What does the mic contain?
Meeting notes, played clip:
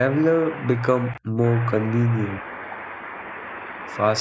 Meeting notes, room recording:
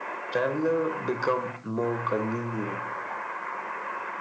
echo only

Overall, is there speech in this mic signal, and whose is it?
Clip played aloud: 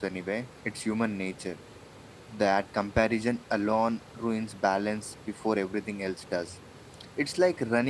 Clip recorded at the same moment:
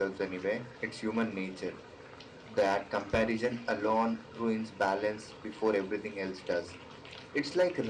echo only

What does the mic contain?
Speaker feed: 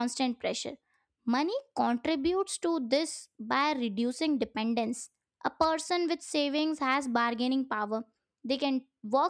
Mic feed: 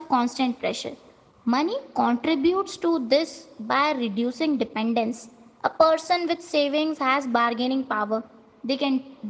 echo only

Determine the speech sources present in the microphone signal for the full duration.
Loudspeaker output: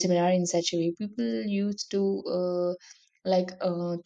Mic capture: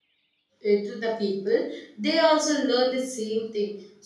user only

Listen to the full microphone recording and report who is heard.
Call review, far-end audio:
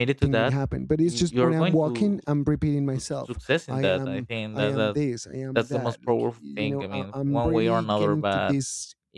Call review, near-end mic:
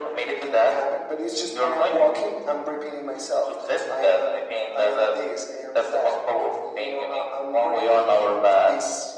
echo only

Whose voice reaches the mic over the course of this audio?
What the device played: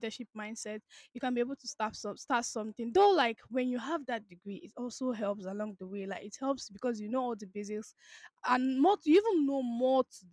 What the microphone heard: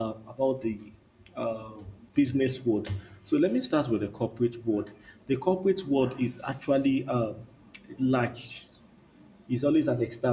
user only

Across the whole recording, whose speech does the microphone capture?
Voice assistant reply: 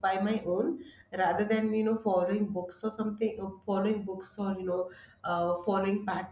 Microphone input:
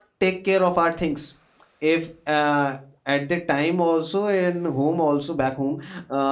user only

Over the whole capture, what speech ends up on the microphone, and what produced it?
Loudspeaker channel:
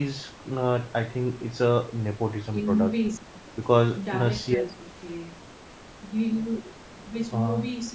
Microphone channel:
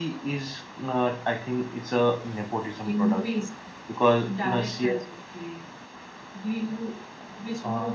echo only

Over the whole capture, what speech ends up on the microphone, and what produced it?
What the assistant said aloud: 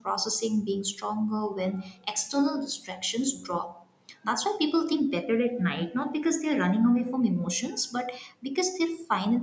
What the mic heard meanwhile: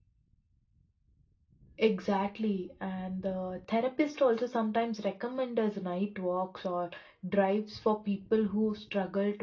user only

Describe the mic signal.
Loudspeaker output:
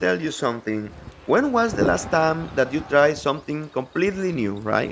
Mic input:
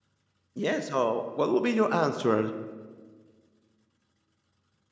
user only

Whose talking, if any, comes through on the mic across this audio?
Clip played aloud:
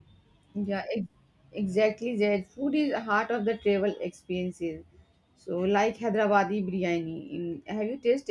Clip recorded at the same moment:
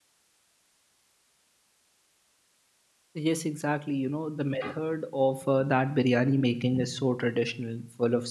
user only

